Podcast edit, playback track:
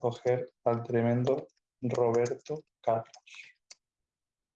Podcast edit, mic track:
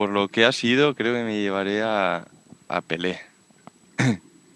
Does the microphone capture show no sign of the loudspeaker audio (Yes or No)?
Yes